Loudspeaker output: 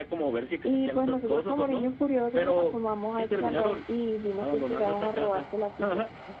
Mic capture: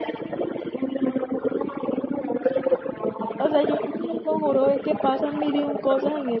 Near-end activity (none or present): present